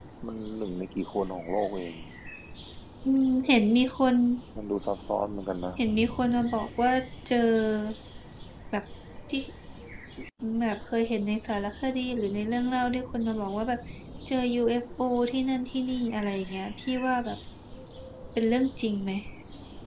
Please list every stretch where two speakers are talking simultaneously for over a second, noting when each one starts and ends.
none

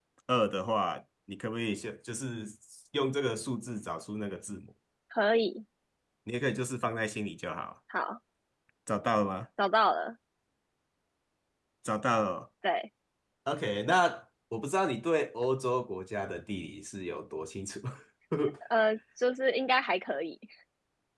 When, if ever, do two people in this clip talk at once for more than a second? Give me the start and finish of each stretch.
none

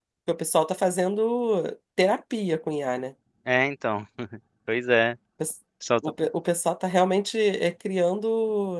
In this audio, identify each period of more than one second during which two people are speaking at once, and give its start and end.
none

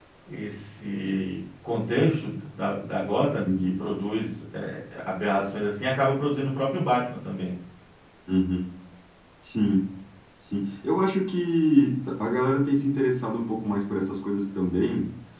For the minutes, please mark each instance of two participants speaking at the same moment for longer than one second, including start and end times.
none

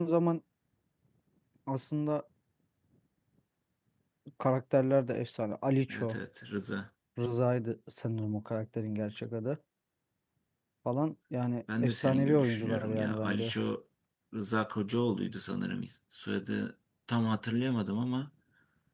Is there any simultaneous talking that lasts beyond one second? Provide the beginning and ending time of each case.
11.8-13.5

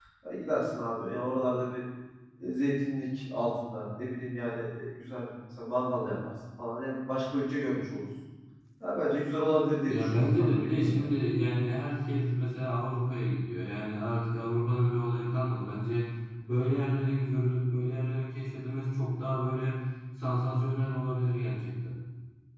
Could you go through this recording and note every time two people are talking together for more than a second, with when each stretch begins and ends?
9.8-11.1

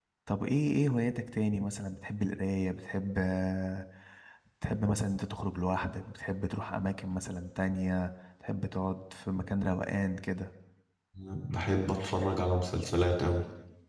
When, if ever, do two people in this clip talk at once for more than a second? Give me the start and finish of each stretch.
none

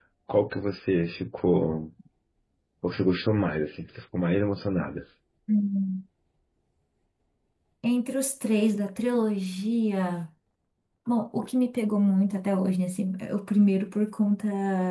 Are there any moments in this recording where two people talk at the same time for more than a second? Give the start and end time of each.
none

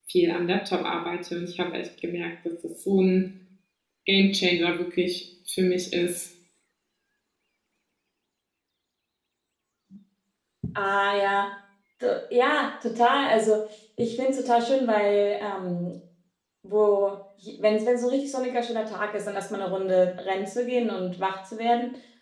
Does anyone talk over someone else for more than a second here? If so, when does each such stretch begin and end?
none

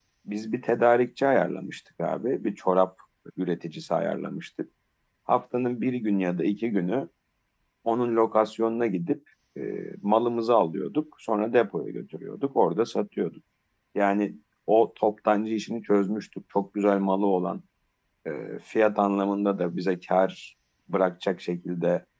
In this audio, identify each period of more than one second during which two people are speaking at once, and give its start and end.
none

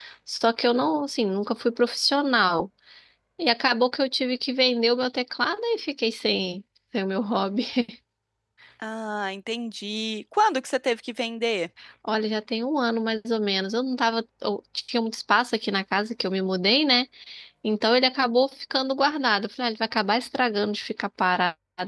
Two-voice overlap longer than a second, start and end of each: none

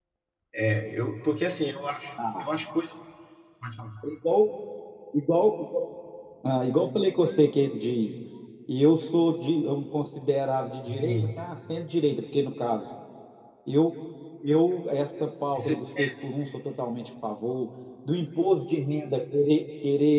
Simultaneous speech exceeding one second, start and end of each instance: none

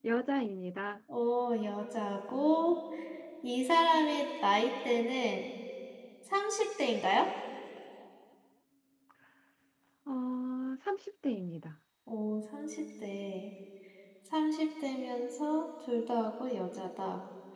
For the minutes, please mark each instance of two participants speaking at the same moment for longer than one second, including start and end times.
none

